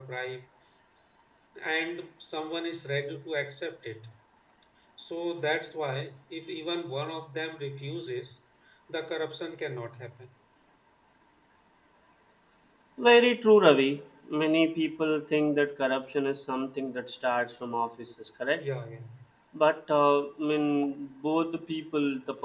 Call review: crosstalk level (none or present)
none